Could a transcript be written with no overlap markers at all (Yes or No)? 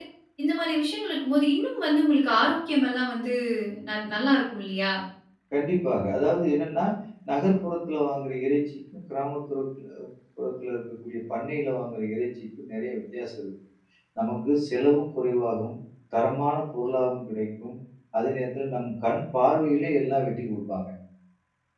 Yes